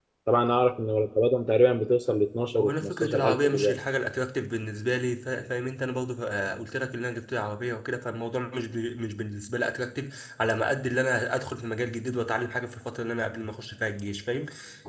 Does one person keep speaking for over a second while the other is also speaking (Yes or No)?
Yes